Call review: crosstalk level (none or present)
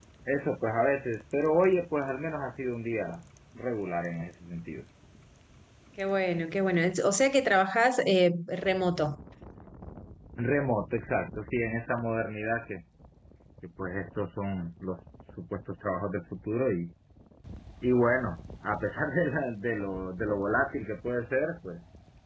none